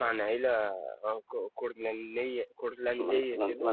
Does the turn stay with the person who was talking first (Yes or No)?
No